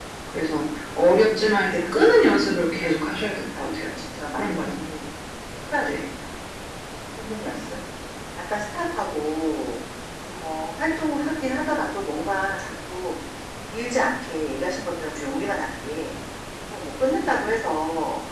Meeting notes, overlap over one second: none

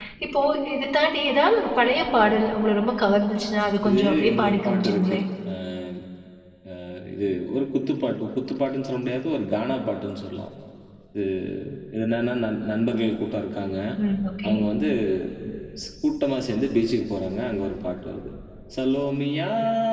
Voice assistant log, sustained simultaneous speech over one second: present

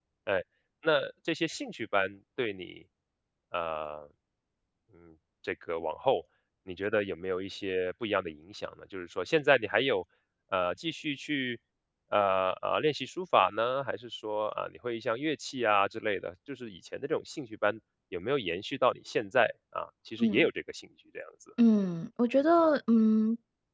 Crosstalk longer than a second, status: none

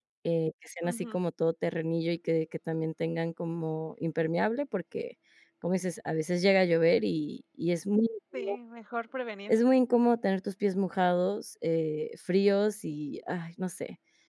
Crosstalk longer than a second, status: none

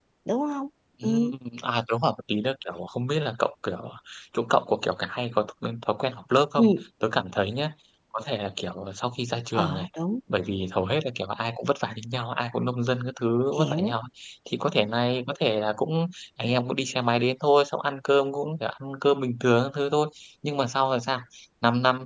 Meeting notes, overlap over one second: none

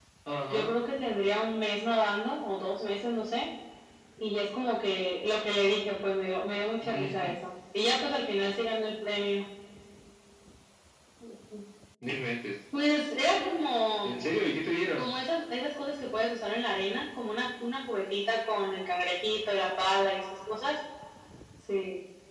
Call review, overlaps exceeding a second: none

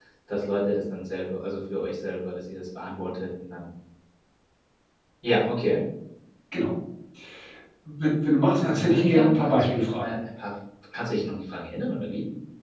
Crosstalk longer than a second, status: present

